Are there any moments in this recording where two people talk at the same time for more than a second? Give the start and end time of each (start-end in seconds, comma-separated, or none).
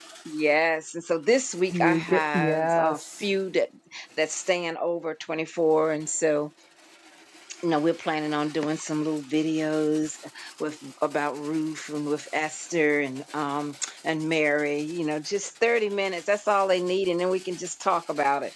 1.7-3.0